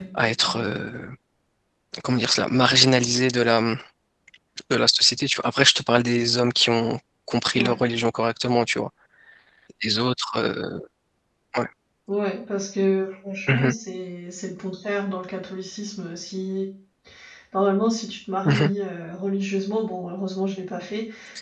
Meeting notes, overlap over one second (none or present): none